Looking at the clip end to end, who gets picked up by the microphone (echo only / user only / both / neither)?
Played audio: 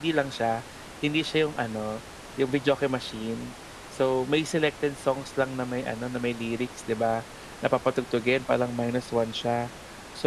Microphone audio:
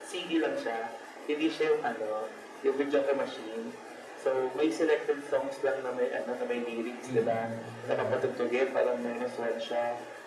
both